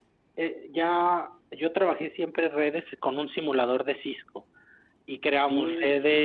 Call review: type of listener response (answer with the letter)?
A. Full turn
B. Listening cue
B